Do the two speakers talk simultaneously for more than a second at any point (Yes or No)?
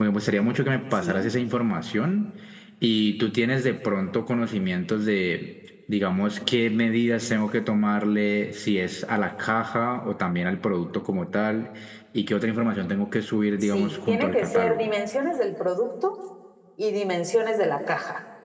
Yes